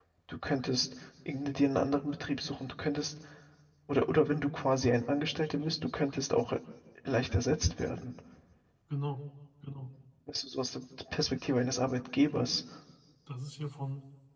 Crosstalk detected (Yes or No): No